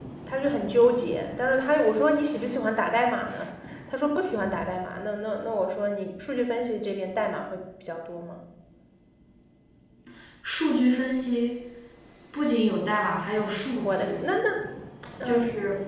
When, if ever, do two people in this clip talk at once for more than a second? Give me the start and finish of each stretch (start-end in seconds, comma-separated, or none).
none